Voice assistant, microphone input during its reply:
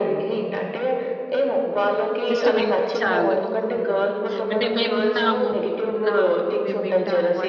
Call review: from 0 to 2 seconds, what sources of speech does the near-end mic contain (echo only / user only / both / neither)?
echo only